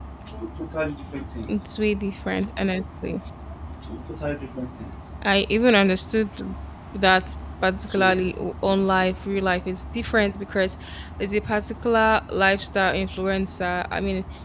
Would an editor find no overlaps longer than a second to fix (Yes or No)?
Yes